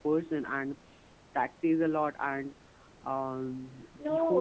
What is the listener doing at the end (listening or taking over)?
taking over